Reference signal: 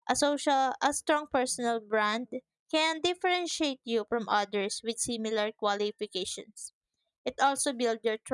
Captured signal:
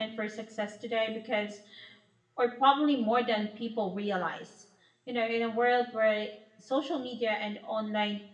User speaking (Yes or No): Yes